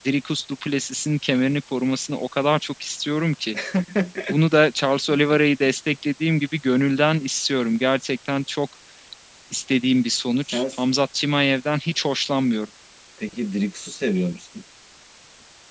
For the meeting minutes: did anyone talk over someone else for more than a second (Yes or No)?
No